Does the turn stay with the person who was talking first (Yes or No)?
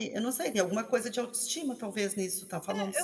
No